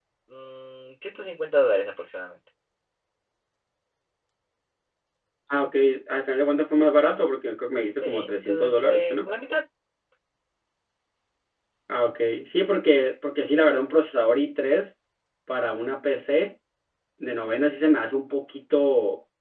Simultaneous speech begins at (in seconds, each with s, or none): 8.0 s